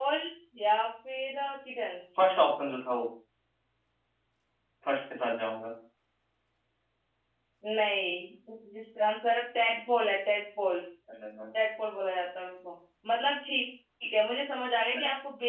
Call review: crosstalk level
none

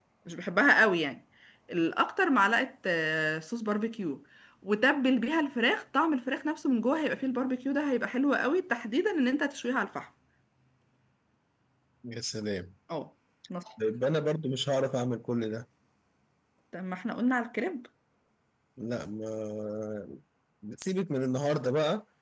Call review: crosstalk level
none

